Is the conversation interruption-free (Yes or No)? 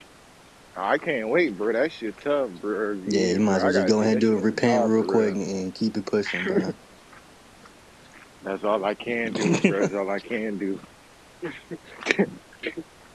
No